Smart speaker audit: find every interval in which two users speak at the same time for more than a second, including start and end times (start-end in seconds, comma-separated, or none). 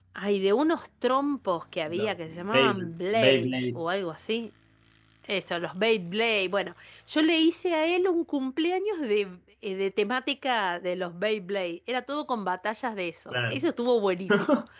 1.9-3.8